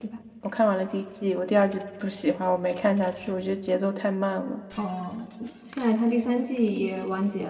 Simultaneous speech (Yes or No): No